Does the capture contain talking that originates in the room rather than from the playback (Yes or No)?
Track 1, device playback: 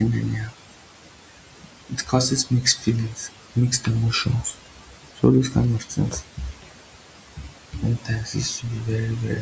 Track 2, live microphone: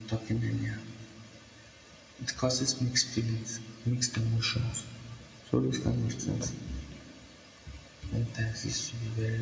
No